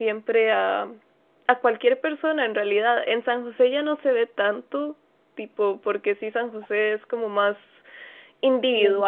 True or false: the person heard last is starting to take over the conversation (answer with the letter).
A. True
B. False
B